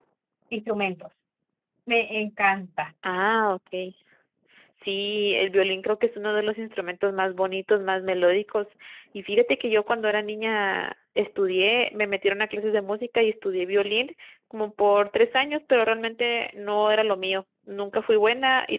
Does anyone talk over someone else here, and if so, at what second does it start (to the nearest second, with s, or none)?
none